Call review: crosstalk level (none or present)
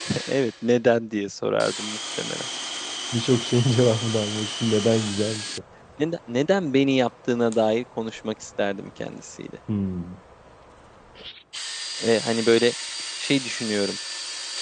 none